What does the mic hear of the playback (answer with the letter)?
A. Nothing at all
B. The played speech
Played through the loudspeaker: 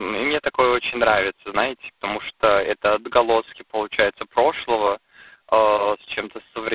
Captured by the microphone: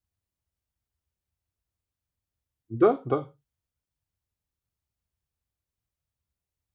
A